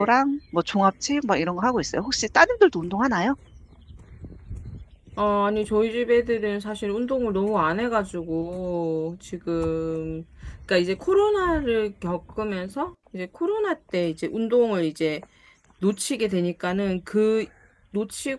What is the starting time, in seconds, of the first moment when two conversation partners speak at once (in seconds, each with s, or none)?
none